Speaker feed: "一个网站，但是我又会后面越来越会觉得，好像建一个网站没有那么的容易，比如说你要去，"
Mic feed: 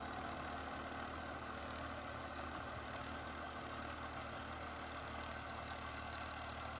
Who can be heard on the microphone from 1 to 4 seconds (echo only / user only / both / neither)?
neither